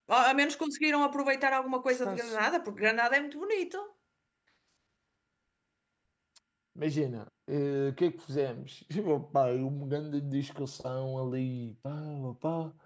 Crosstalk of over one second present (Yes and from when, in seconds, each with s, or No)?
No